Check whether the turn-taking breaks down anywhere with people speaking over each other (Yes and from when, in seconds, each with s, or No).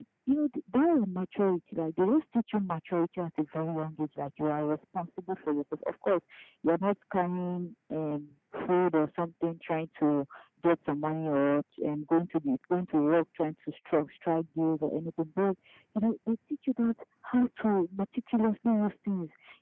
No